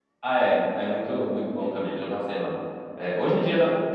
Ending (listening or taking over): listening